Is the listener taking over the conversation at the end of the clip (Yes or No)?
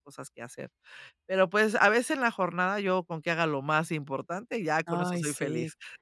Yes